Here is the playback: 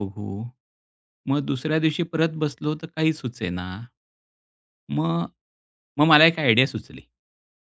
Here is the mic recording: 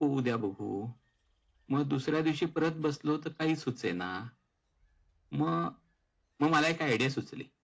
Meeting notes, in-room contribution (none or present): none